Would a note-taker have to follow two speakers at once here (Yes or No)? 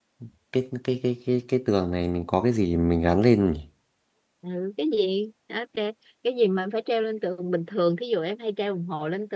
No